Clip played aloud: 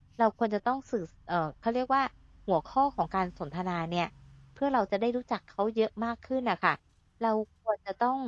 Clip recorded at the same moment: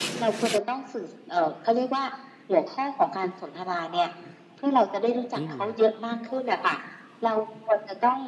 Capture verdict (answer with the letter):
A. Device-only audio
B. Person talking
B